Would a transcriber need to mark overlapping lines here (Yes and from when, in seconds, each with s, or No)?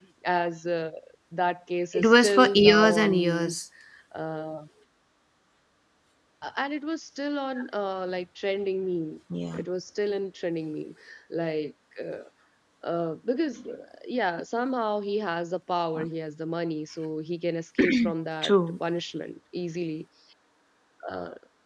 Yes, from 1.9 s